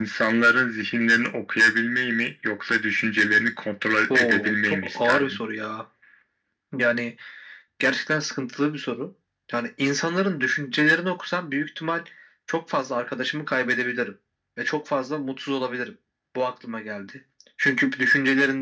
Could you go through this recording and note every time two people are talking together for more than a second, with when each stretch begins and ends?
4.1-5.4

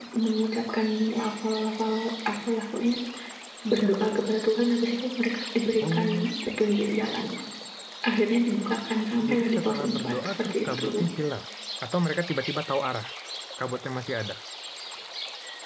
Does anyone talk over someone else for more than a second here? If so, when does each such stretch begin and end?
9.3-10.8

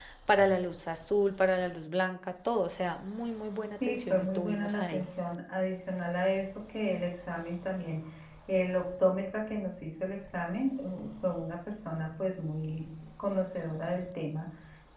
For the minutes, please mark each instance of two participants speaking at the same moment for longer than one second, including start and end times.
3.8-5.1

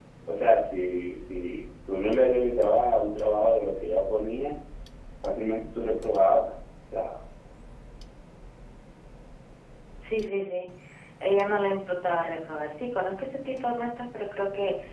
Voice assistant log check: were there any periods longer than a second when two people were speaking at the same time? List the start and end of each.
none

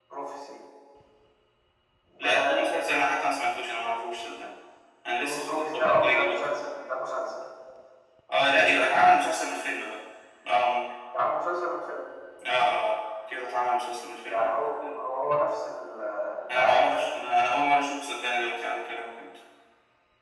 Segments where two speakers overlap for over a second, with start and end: 5.2-6.5

